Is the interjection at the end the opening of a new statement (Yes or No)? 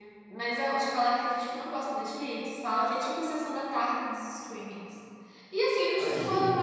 No